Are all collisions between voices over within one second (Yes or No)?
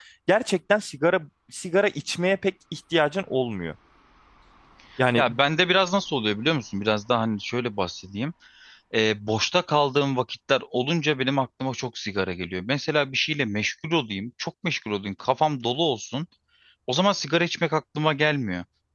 Yes